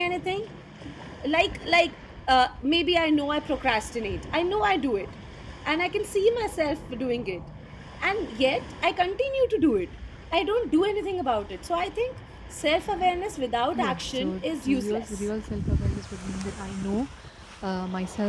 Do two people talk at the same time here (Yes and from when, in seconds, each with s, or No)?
Yes, from 13.7 s